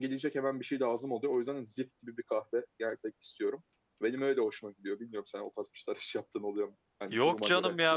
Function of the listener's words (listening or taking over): taking over